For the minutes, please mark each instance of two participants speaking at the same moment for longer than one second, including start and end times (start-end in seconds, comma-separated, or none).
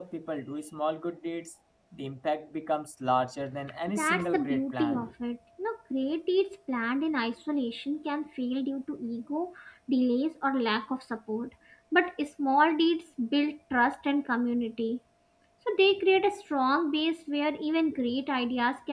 3.9-5.1